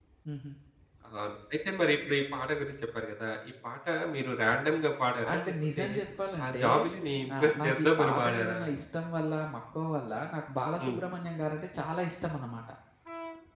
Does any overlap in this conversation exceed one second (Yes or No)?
Yes